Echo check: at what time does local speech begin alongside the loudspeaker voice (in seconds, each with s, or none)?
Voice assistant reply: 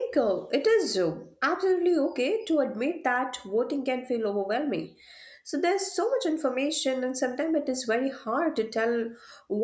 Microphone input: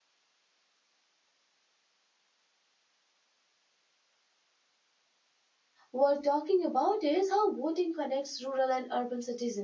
5.9 s